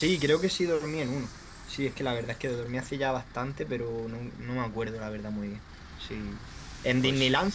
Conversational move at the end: listening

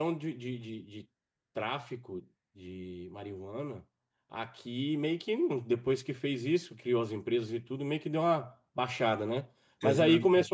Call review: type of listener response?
listening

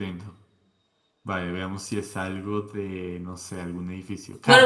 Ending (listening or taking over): taking over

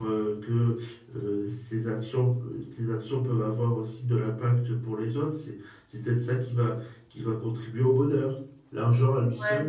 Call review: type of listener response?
listening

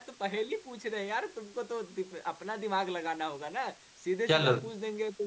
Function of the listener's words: listening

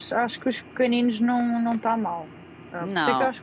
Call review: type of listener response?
listening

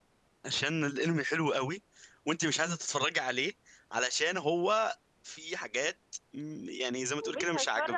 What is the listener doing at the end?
taking over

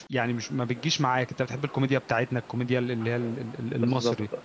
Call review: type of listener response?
taking over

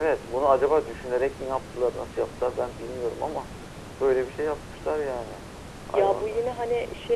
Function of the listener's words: taking over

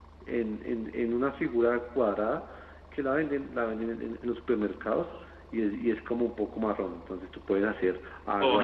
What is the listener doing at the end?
taking over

